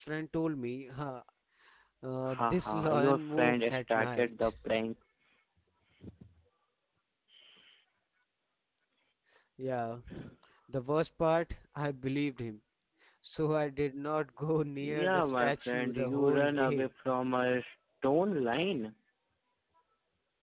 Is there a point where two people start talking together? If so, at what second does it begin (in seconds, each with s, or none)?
2.3 s